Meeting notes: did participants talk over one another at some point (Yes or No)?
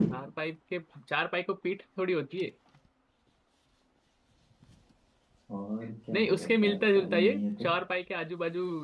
Yes